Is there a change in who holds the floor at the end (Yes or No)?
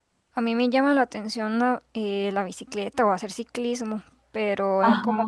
No